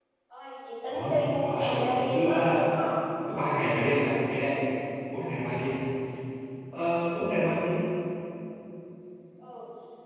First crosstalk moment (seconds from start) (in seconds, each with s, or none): 0.9 s